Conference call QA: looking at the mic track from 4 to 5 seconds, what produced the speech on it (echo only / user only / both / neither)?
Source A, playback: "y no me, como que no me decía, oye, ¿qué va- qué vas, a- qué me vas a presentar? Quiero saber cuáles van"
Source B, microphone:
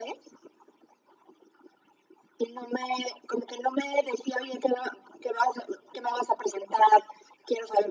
echo only